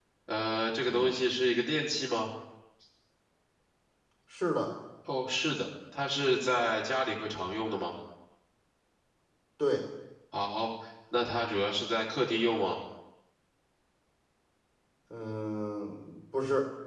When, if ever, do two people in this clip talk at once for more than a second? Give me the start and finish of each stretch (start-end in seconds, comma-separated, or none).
none